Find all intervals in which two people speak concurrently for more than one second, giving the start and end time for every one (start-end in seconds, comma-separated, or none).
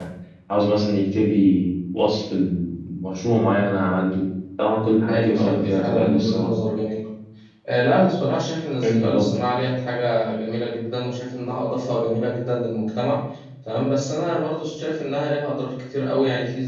5.1-6.5